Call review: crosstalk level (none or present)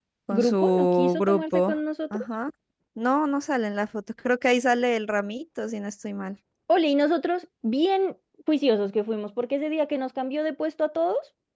present